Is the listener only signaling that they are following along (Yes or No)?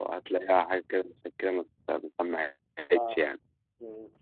No